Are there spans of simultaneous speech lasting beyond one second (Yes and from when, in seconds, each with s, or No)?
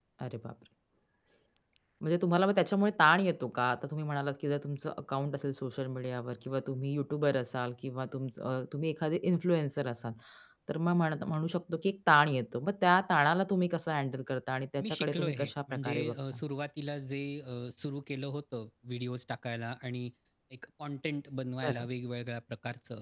Yes, from 14.8 s